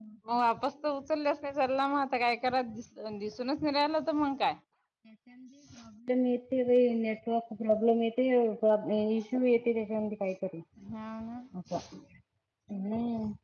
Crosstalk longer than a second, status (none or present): none